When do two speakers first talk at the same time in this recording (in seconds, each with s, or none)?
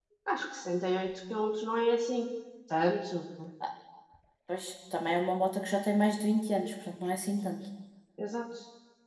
none